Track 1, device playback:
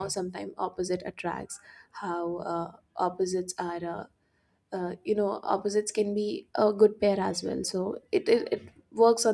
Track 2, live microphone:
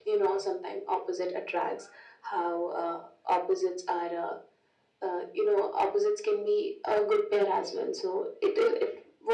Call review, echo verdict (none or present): present